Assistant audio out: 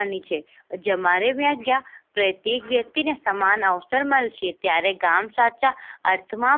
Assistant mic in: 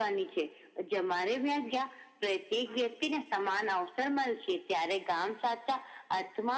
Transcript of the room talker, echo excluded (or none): none